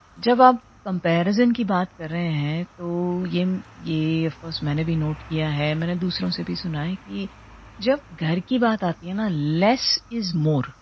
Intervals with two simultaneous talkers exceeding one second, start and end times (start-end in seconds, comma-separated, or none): none